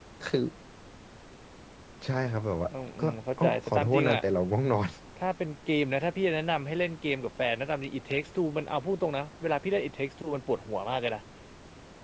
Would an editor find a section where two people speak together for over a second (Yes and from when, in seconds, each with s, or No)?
Yes, from 3.0 s